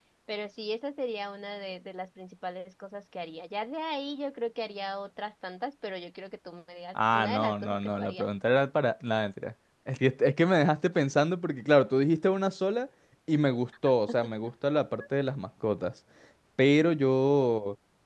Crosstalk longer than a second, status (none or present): present